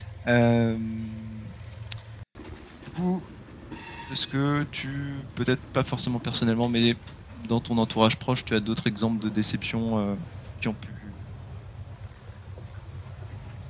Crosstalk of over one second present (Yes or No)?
No